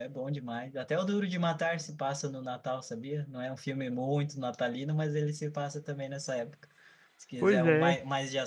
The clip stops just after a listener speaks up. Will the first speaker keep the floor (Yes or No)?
Yes